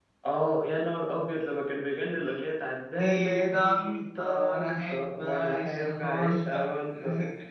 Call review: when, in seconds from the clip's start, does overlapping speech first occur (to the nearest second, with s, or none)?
3 s